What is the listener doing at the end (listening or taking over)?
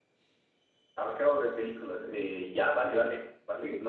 listening